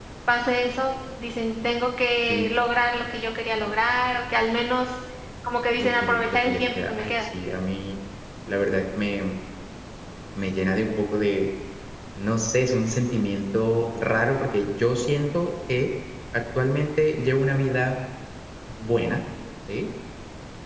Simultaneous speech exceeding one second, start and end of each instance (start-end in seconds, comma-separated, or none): 5.8-7.1